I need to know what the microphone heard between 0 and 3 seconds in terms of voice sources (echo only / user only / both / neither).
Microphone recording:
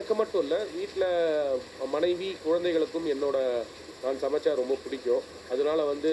echo only